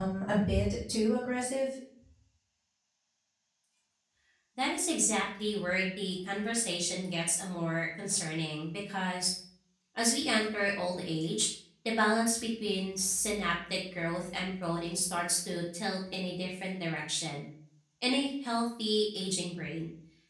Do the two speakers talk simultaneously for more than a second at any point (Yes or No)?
No